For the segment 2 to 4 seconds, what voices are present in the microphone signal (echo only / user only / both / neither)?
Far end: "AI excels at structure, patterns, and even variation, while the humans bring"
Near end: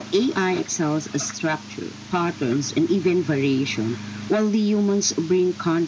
echo only